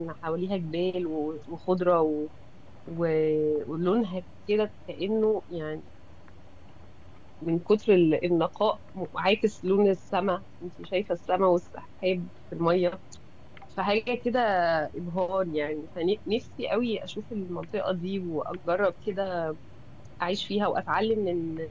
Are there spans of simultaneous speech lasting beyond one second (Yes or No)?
No